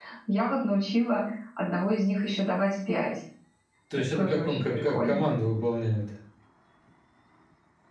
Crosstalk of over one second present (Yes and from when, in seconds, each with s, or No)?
Yes, from 4.0 s